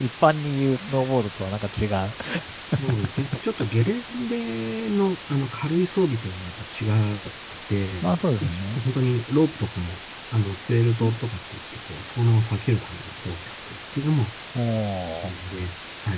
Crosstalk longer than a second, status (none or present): none